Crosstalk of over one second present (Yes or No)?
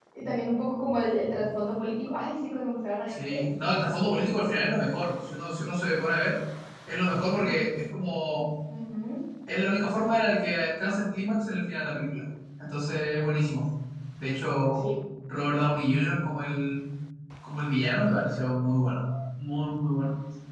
No